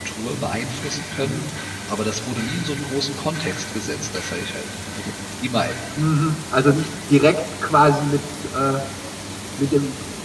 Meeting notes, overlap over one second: none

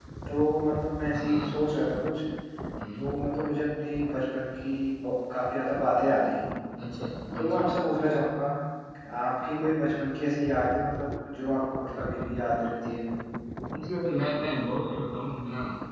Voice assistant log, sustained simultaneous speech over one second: none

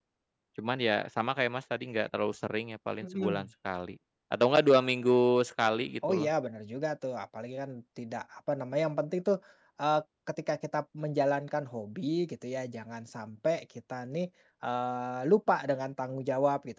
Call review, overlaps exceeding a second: none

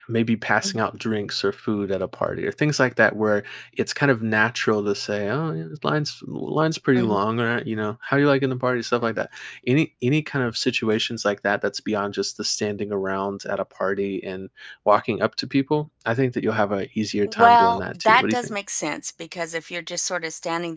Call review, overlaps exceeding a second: present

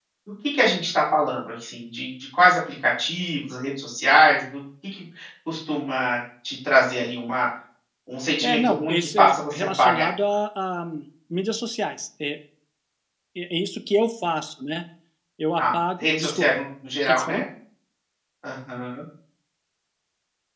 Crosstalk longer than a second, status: present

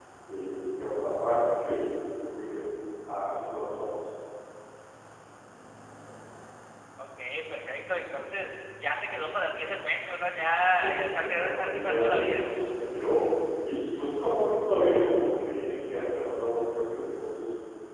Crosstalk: present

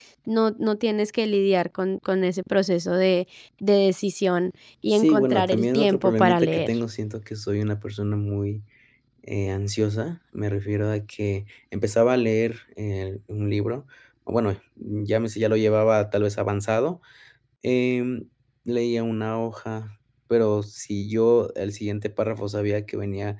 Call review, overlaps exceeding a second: present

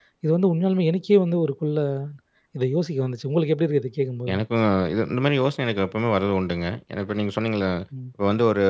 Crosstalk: none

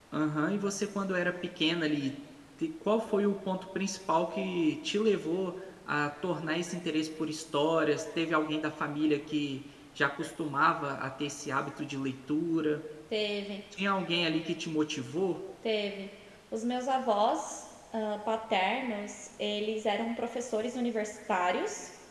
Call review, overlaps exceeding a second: none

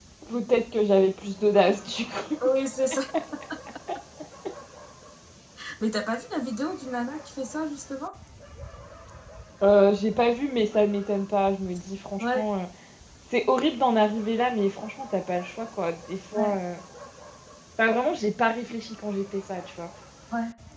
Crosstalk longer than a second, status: none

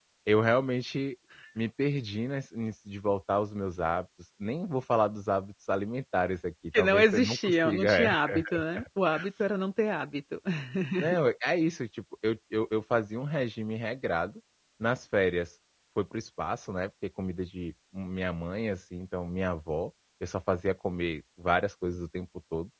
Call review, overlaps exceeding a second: present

